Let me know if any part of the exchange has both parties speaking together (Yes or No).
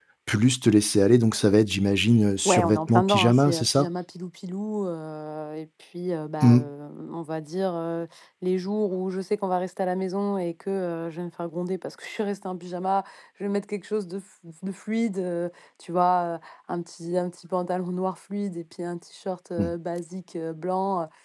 Yes